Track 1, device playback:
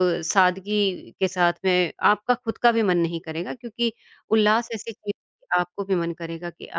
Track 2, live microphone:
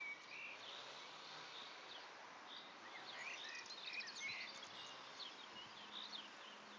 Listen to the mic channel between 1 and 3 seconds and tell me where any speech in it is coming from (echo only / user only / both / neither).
neither